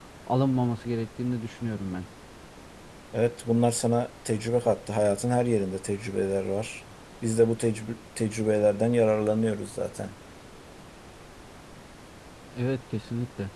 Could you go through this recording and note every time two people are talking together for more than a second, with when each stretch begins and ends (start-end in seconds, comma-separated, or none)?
none